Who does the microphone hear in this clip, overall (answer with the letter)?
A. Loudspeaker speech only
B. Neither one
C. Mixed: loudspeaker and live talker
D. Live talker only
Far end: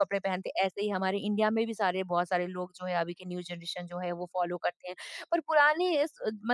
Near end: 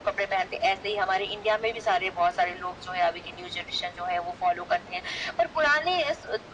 A